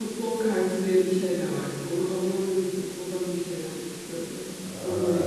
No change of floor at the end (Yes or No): No